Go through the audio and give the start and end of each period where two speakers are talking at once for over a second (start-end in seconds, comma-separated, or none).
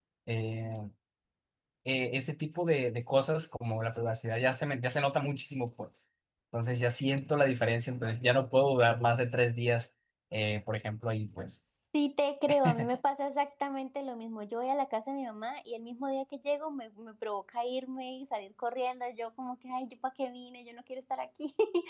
none